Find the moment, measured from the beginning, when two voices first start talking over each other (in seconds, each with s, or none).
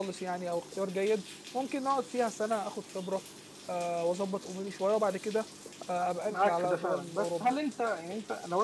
6.3 s